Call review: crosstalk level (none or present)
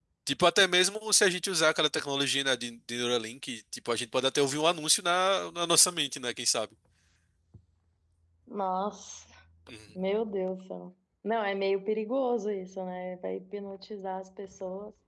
none